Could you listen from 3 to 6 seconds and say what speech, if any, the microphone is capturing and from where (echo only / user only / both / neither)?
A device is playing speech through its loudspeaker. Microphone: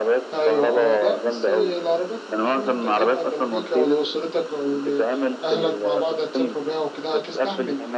both